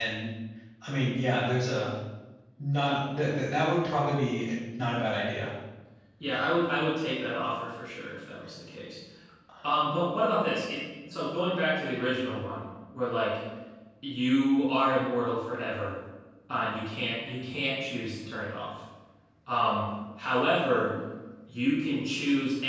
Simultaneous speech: No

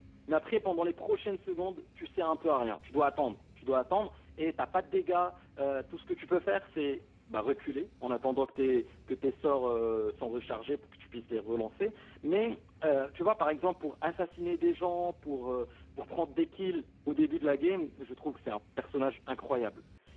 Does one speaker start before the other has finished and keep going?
No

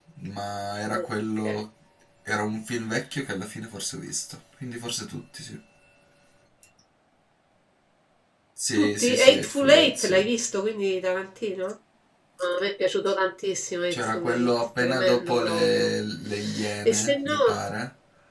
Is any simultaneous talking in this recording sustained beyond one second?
Yes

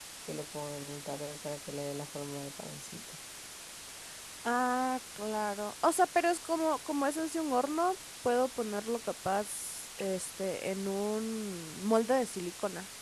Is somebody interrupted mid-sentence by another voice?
No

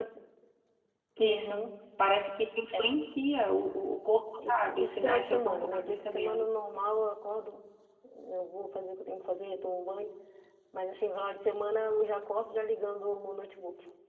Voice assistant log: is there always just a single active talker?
No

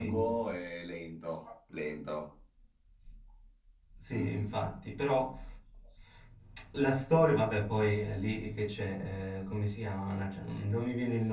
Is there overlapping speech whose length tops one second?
No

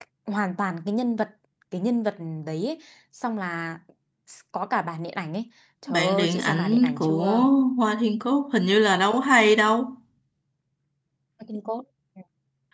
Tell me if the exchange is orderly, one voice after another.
No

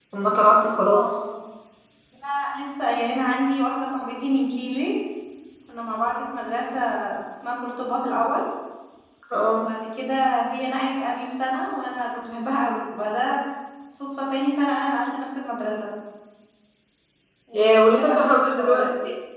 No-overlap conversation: No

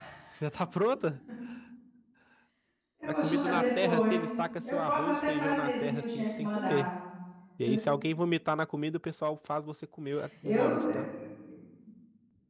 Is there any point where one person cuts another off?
Yes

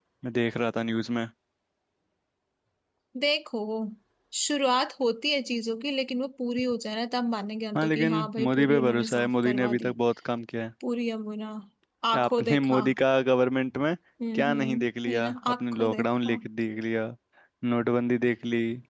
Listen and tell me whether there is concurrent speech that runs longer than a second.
Yes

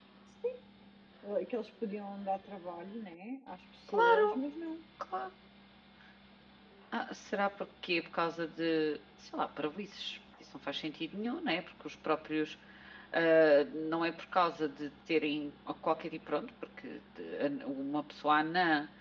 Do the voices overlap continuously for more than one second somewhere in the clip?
No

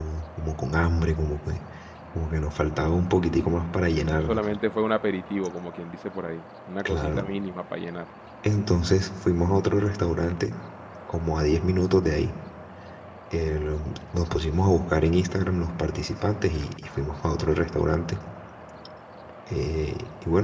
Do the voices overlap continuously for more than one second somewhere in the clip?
No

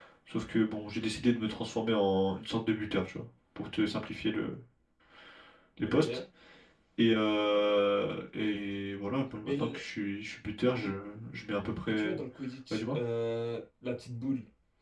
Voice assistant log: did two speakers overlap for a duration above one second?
No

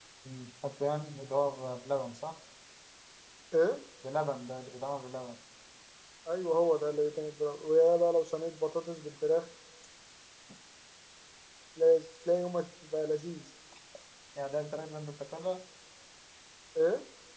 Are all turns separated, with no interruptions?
Yes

